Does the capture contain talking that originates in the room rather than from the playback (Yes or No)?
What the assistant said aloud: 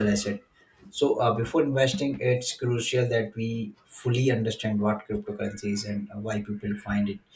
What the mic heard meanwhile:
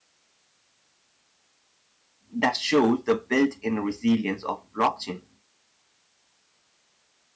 Yes